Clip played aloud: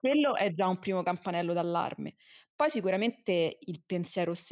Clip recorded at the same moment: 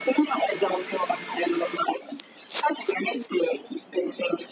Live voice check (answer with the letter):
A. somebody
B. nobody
B